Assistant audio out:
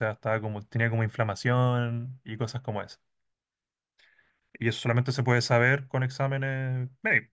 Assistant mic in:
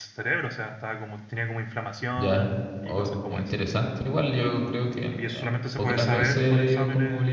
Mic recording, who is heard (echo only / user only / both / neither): both